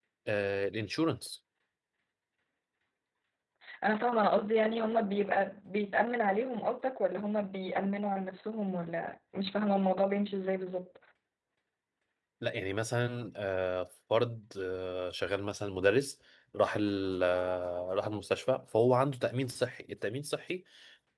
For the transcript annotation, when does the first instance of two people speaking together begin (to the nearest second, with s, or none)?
none